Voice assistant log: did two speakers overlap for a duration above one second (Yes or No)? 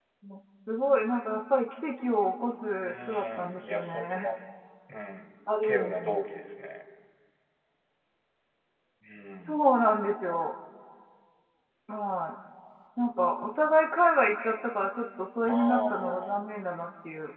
Yes